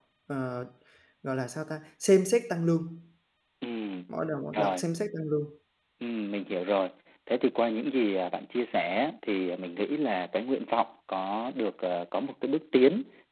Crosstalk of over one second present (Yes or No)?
No